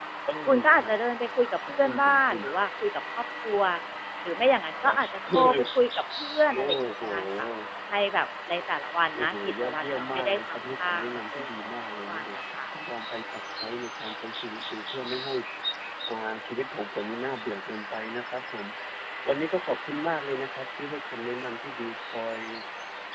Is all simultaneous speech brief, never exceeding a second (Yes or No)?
No